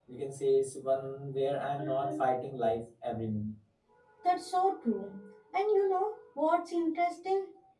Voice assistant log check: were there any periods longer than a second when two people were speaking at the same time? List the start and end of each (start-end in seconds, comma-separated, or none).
none